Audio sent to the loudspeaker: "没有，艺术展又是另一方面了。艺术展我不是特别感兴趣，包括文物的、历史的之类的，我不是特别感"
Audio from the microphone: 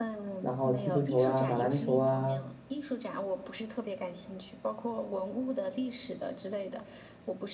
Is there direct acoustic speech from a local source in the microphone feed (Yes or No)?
Yes